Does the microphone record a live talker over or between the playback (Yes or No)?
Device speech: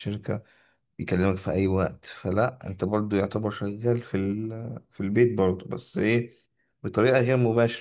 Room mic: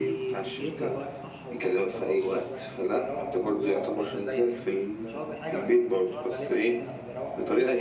Yes